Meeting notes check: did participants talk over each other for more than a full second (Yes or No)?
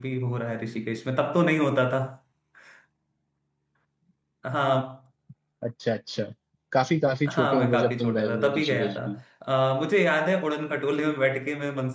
Yes